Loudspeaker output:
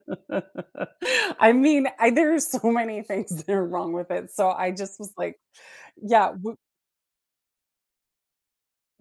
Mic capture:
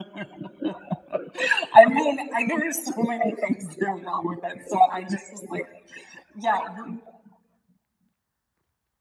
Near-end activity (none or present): none